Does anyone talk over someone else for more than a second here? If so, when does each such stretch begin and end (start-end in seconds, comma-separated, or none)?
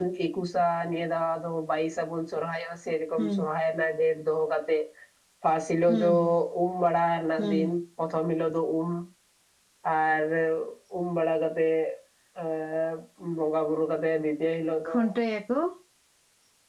none